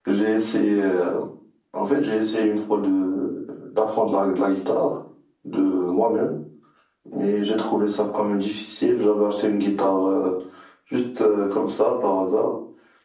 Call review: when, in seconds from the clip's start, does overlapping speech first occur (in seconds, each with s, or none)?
none